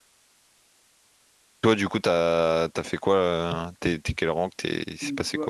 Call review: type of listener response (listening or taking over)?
taking over